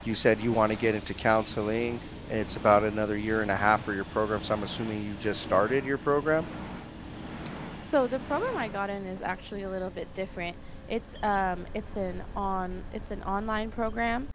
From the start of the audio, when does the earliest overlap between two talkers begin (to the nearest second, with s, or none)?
none